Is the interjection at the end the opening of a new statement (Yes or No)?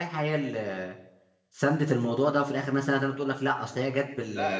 Yes